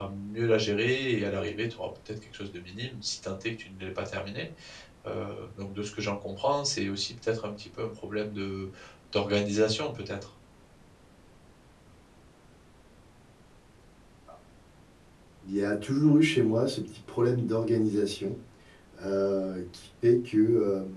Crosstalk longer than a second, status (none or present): none